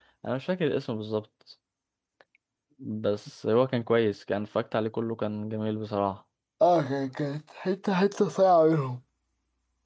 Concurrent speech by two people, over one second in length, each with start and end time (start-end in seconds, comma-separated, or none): none